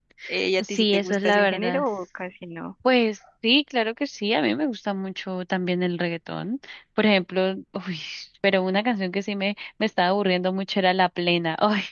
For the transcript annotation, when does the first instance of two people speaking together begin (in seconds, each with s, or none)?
0.6 s